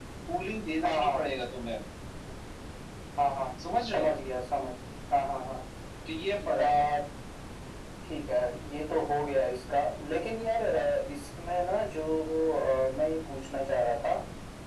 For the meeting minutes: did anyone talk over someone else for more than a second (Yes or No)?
No